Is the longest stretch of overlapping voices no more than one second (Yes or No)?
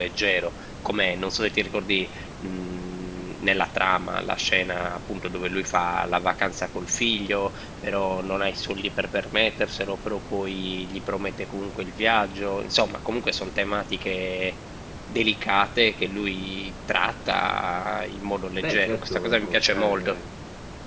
No